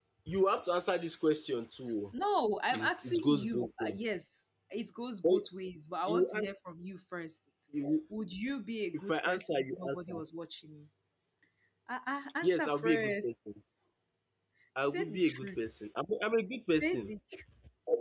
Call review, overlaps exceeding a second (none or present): present